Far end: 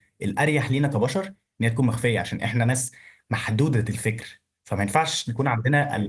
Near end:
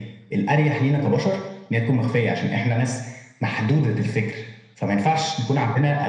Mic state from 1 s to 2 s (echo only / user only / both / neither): echo only